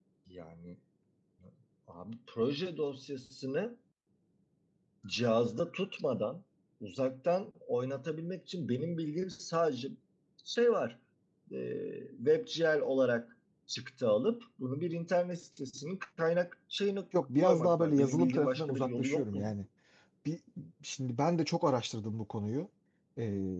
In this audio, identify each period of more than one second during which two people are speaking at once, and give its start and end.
17.4-19.5

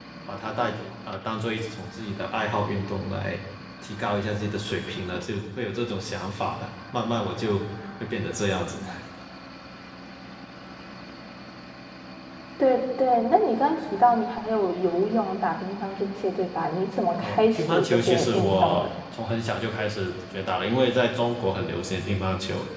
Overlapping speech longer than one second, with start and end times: 17.2-18.9

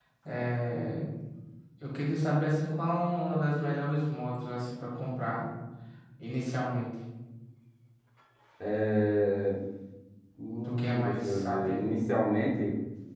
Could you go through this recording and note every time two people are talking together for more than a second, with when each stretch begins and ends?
10.6-11.9

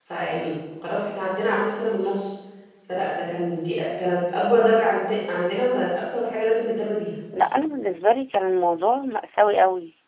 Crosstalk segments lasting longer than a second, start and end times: none

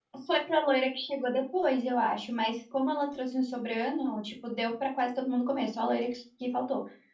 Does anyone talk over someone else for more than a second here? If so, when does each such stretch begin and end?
none

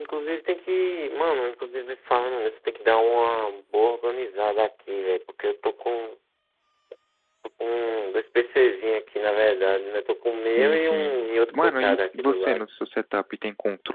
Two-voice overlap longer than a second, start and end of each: 10.6-12.7

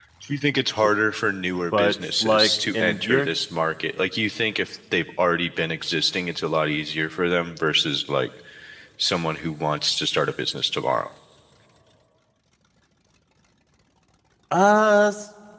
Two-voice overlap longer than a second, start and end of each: 1.7-3.3

